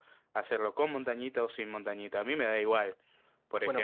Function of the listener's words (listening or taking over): taking over